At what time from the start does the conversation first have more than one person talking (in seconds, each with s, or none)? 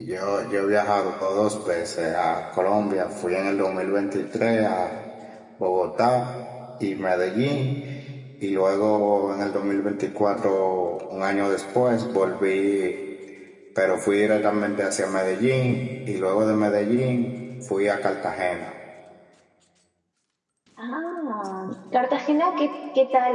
none